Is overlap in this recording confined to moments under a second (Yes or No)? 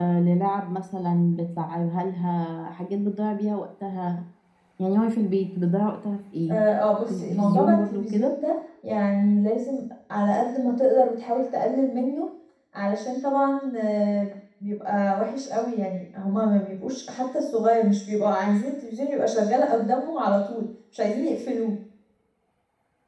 No